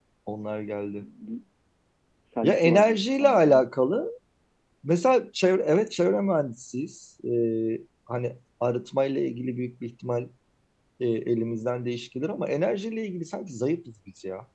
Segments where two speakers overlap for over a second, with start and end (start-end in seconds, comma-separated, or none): 2.4-3.6